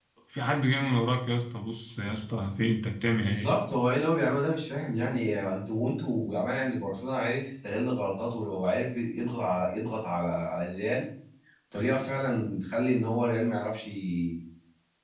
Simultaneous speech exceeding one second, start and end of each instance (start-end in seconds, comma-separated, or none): none